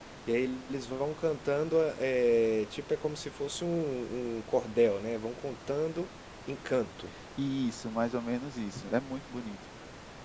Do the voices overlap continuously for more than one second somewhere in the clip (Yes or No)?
No